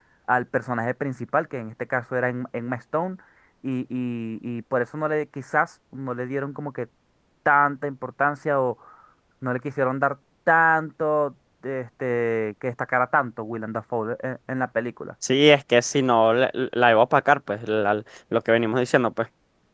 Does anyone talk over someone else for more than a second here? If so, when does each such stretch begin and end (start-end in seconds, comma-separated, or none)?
none